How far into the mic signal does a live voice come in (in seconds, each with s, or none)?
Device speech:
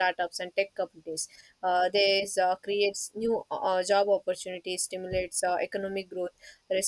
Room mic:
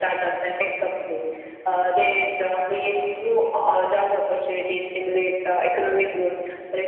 none